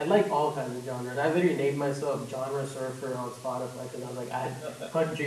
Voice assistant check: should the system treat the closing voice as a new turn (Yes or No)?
No